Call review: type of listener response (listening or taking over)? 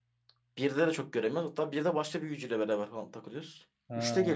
listening